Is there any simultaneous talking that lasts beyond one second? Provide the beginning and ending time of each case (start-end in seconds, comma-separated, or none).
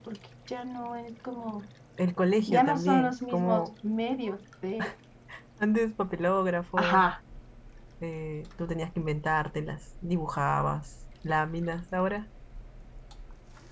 2.5-3.7